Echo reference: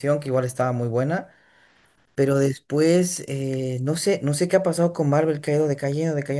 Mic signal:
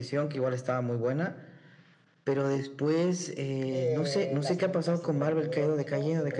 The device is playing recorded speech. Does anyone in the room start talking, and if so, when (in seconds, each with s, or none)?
3.7 s